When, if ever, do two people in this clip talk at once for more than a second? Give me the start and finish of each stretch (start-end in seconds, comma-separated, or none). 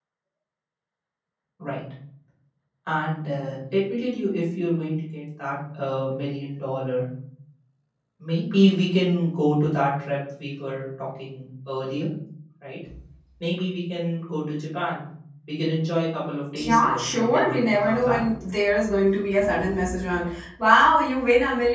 16.6-18.2